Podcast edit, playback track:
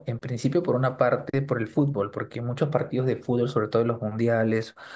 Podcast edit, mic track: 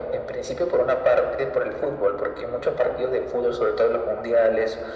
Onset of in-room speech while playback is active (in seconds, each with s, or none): none